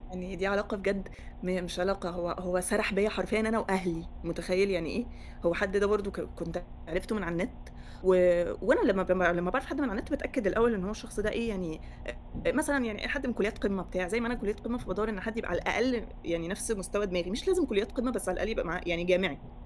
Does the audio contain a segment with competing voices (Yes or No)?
No